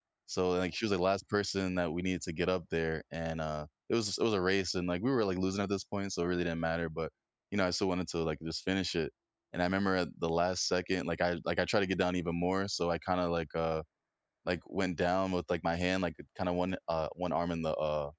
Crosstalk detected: No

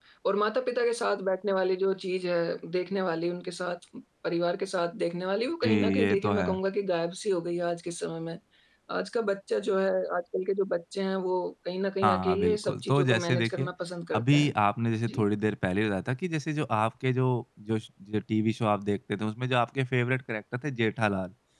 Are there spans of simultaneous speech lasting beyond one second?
Yes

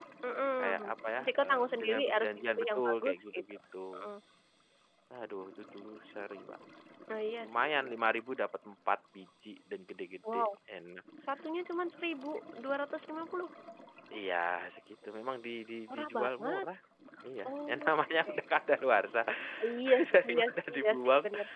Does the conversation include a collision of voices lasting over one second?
Yes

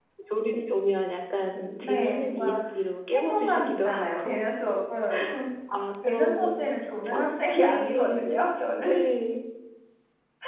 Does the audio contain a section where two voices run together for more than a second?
Yes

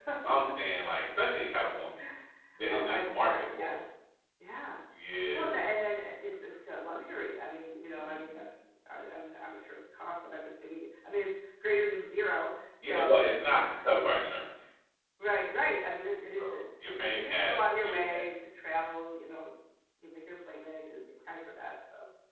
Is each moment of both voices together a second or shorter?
No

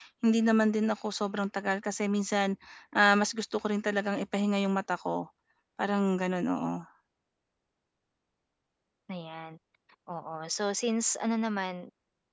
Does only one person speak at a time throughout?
Yes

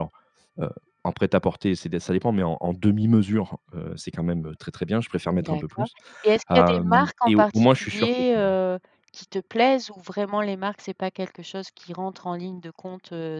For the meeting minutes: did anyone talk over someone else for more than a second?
Yes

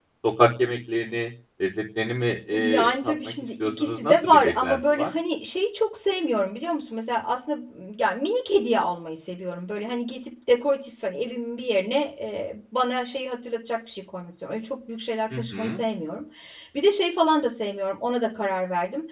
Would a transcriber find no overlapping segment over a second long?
No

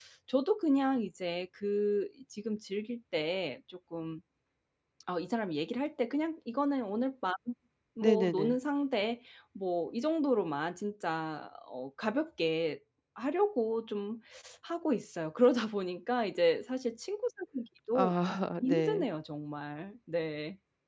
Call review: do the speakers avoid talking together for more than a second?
Yes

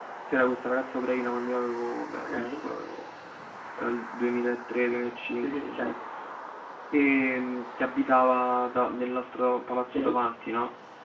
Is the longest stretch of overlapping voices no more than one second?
Yes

